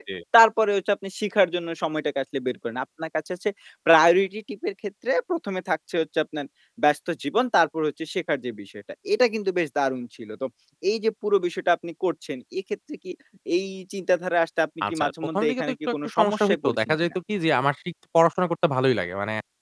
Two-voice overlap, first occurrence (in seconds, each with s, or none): 14.8 s